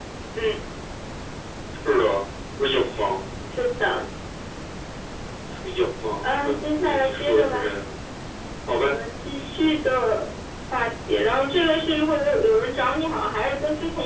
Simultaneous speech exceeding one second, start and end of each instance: 6.2-7.7

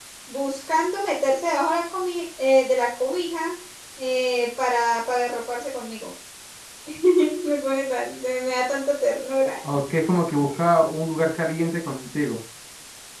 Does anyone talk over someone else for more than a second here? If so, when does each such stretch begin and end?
none

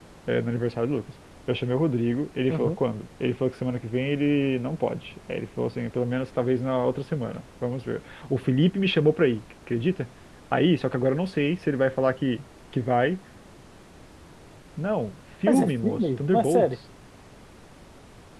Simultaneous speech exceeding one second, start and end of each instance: 15.5-16.7

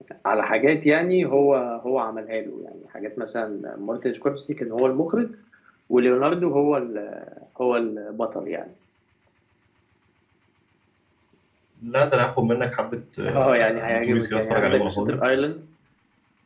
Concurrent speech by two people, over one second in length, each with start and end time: 13.3-15.2

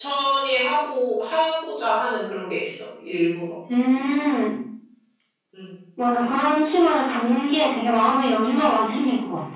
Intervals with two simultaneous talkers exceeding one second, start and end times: none

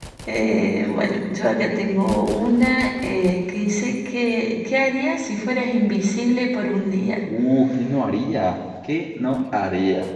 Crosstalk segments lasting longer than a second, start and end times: none

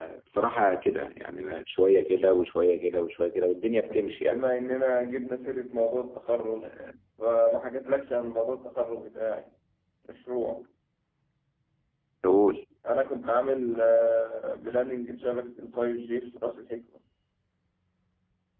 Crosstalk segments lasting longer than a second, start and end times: none

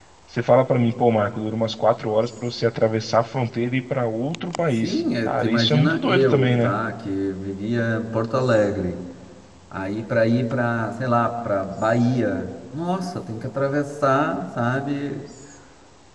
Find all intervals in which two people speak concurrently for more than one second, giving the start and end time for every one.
4.8-6.7

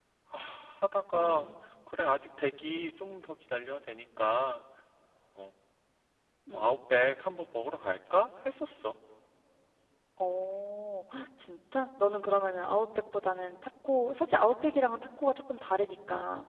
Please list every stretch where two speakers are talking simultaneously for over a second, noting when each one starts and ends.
none

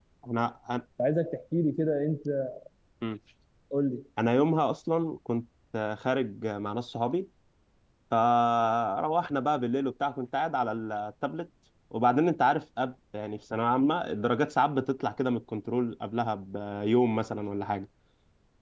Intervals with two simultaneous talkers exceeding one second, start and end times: none

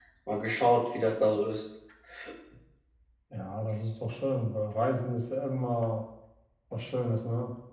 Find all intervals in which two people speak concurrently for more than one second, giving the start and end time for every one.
none

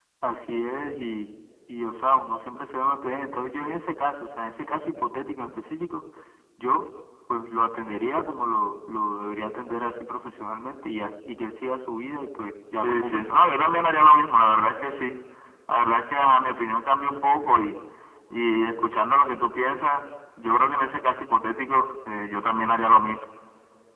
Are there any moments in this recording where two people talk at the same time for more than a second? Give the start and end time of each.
12.8-14.1

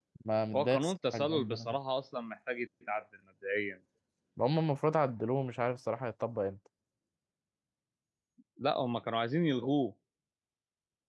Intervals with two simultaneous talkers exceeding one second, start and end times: 0.6-1.8

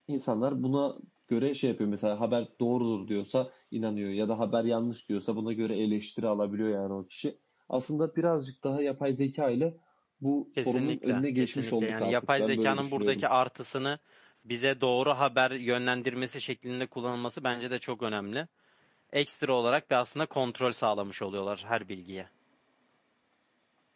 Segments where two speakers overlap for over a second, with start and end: 10.6-13.2

